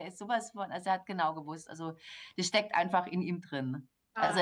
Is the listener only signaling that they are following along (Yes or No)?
Yes